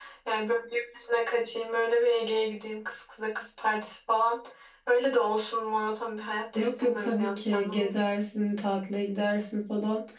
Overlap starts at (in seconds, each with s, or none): 6.5 s